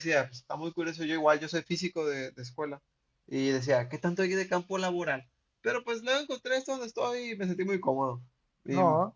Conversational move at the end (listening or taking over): listening